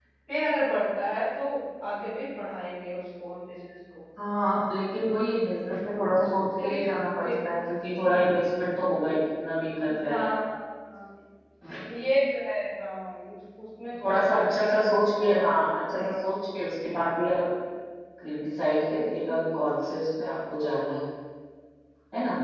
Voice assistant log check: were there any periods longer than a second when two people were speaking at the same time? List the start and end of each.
13.9-15.3

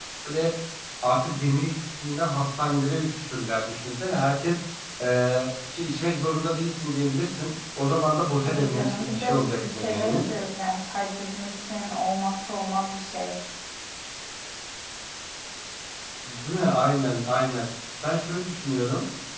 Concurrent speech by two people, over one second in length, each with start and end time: 8.4-10.2

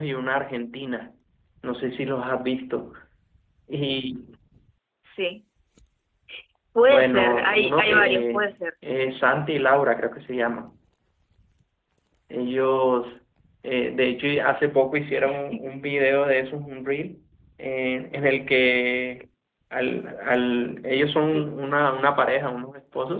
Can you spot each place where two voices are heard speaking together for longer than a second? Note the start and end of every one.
6.9-8.5

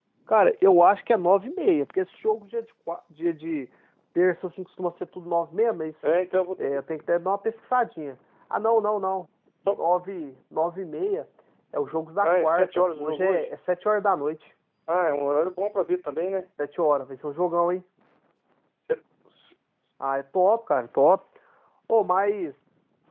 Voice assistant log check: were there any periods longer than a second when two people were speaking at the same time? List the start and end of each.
12.2-13.5

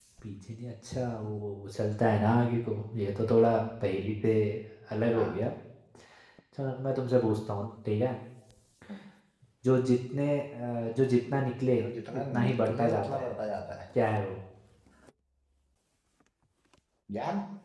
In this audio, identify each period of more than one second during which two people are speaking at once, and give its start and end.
11.8-13.3

